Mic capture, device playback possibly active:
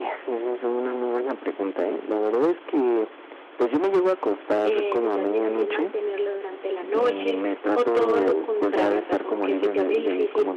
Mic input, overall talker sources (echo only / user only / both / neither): both